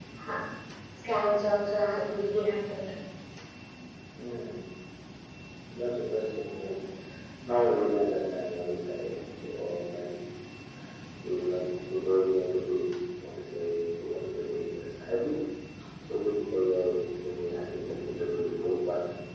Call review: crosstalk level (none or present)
none